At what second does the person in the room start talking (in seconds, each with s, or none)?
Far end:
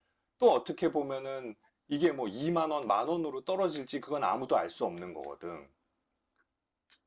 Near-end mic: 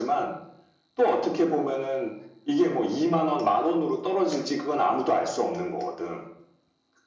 none